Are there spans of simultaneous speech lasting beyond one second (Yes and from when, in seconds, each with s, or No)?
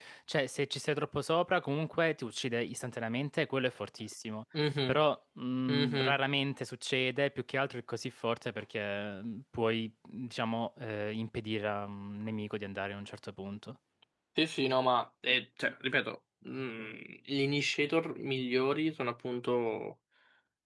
No